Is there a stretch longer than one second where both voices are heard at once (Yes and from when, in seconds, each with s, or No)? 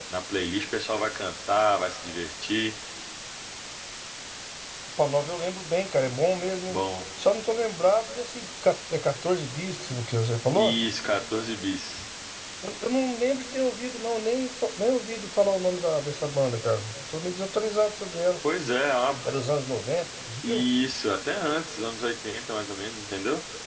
No